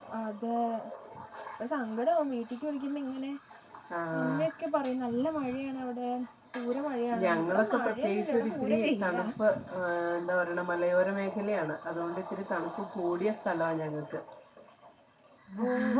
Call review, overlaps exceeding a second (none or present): present